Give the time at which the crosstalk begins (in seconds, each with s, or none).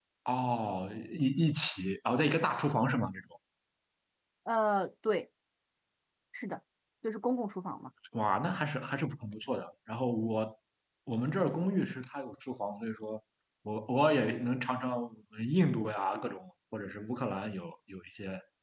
none